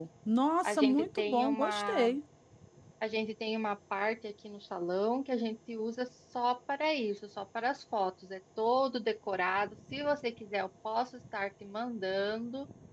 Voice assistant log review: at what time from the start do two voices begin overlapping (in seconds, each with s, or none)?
0.6 s